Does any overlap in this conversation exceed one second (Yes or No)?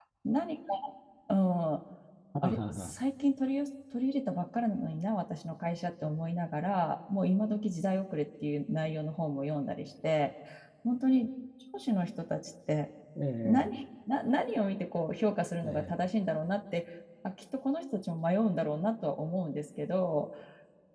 No